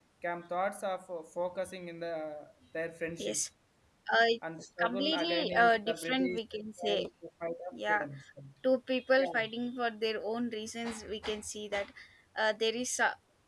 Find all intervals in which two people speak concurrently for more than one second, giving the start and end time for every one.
4.8-6.4

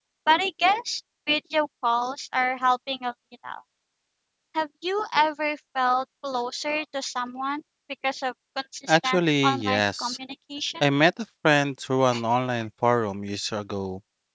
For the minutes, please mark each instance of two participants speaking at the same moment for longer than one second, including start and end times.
8.9-10.2

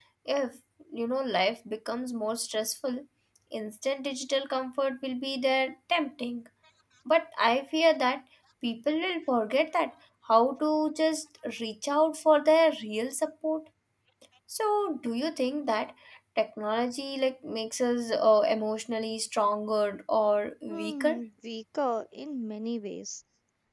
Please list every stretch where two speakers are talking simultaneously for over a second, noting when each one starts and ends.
none

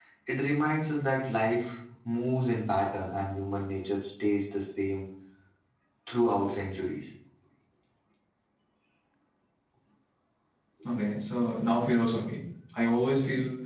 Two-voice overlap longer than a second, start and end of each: none

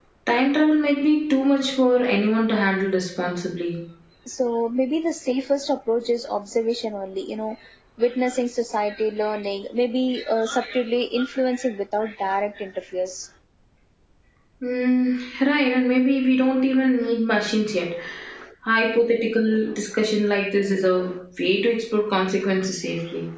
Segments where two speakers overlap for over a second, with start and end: none

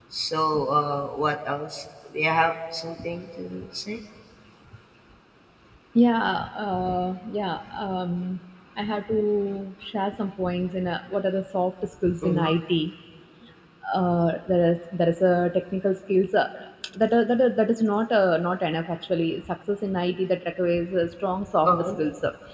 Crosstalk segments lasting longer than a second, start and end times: none

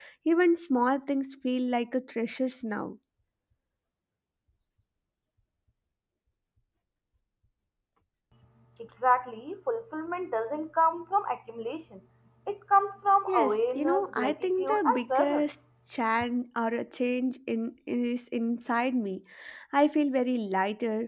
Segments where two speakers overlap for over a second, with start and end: 13.3-15.4

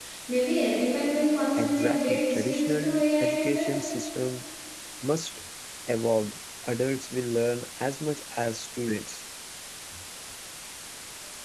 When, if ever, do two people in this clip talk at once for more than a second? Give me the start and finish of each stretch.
1.6-3.9

